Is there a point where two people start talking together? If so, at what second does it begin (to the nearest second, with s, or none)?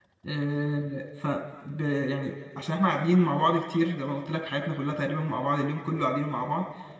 none